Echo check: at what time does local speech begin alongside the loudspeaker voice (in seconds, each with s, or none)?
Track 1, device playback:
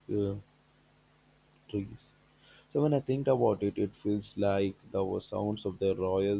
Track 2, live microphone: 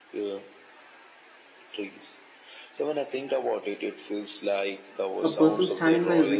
5.2 s